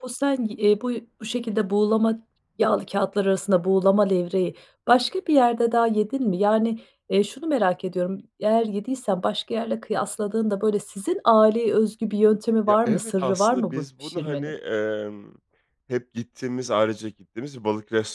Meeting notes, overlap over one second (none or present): present